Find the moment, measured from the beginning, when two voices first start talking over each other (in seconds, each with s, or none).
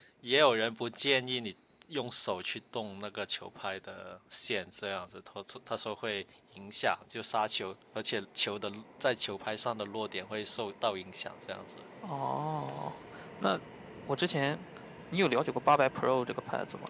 none